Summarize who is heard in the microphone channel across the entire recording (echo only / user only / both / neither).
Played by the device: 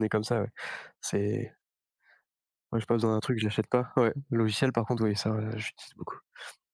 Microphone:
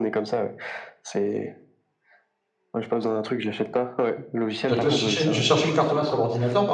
both